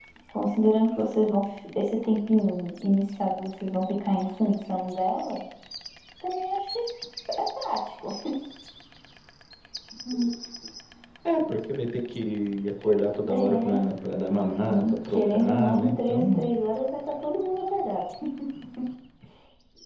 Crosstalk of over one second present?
Yes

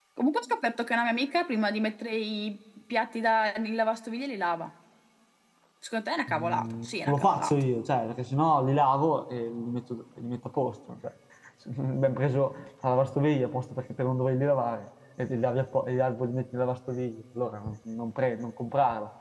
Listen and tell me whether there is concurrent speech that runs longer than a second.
Yes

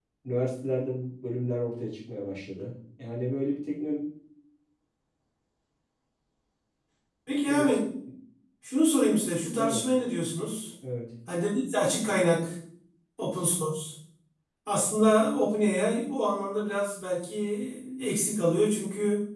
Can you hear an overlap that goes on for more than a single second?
No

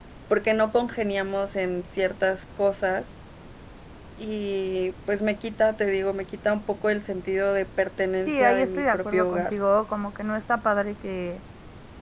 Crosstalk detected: Yes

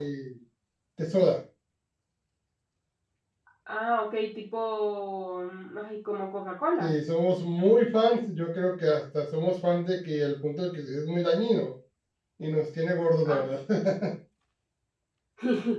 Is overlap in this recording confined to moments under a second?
Yes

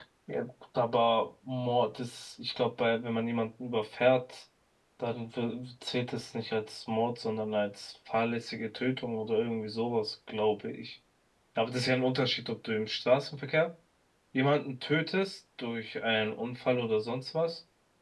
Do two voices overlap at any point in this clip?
No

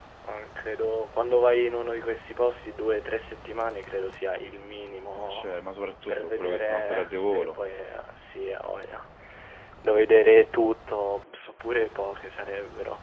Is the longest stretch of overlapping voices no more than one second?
No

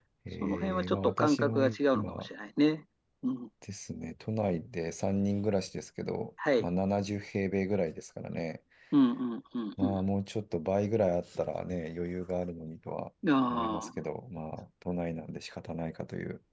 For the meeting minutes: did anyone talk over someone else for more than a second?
Yes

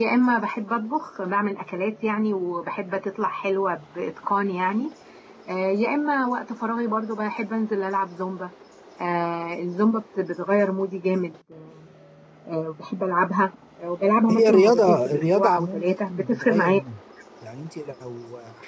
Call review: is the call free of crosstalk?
No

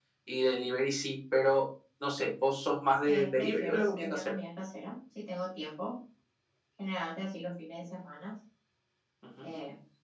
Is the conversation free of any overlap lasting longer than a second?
No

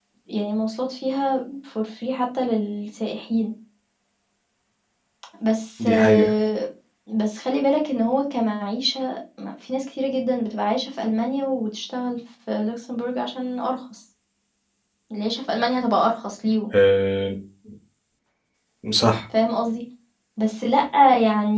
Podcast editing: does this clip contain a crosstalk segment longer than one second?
No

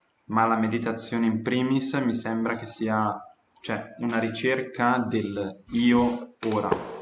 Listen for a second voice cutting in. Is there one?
No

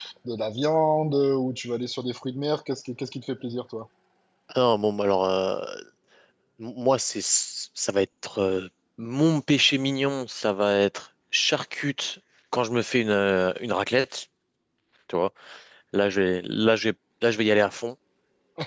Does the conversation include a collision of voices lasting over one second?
No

